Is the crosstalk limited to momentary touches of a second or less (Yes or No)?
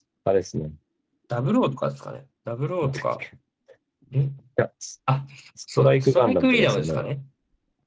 No